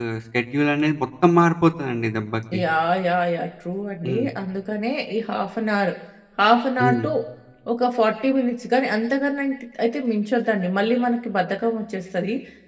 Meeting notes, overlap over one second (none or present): none